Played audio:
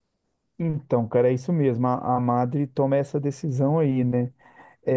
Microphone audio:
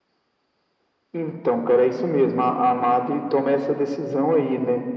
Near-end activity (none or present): none